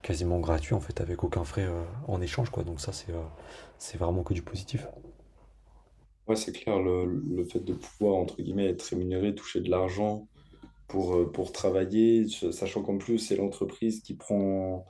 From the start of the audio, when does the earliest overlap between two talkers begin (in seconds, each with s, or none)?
none